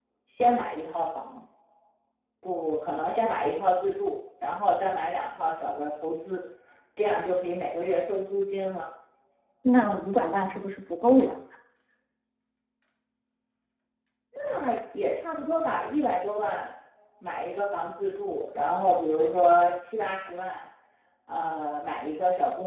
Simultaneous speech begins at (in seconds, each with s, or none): none